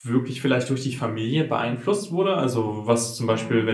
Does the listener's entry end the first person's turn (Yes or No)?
No